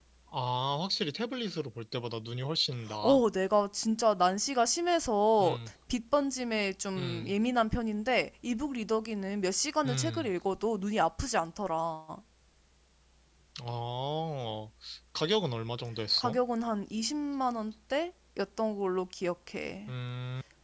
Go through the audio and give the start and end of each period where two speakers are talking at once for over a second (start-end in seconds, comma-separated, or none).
none